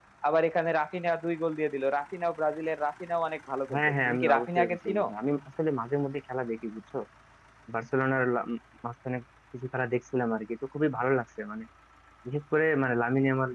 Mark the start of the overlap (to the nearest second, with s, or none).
4 s